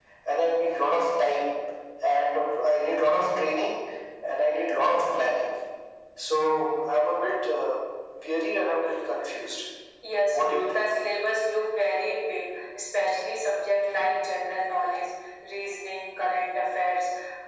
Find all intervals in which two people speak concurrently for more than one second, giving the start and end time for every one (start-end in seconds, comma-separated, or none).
none